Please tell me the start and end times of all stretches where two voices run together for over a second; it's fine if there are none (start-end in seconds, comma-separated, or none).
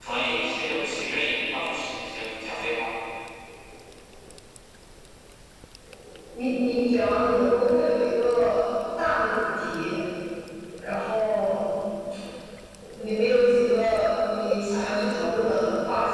none